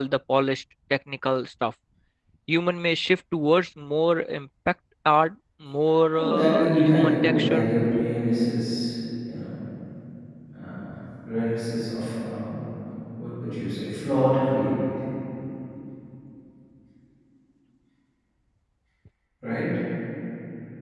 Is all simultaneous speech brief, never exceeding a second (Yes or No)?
No